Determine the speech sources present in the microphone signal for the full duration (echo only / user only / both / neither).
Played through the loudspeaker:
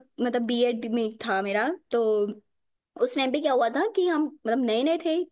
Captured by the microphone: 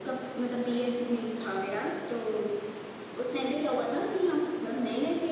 echo only